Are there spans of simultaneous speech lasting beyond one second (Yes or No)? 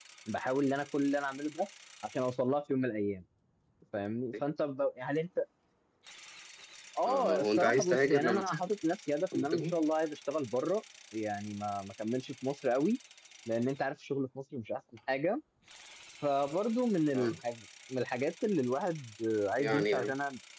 Yes